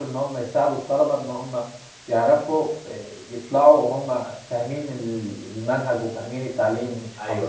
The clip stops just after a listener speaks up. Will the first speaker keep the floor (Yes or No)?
No